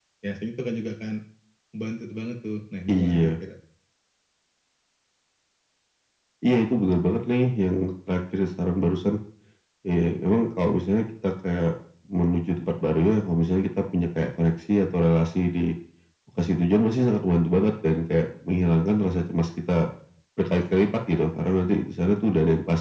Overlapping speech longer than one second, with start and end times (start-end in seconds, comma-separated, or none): none